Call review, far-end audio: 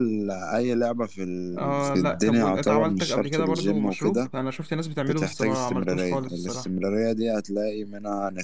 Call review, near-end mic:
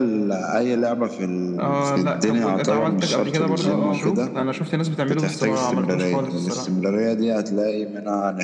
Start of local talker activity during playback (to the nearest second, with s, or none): 4 s